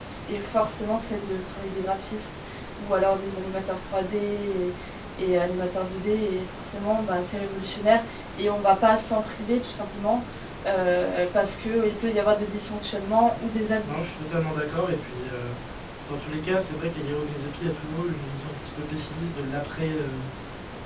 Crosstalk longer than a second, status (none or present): none